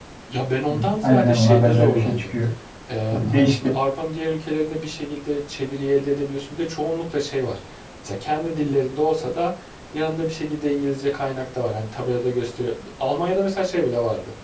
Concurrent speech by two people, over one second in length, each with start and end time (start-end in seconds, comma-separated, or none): 0.7-2.2